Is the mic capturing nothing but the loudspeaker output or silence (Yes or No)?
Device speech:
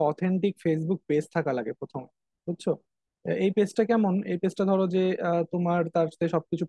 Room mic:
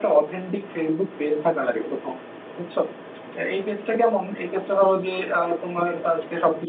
Yes